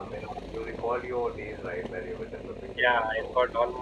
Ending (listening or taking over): taking over